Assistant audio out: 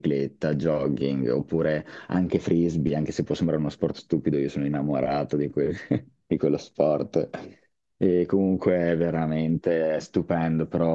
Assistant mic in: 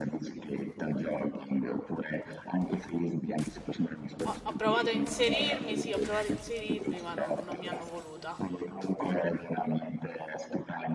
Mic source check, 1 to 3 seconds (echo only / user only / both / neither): echo only